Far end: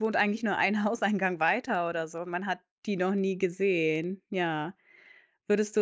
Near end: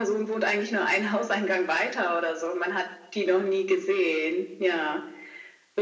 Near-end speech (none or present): none